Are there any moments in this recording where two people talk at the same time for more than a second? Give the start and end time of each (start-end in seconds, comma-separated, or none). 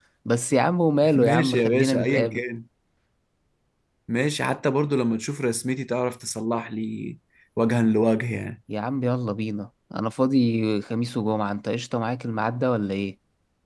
1.2-2.4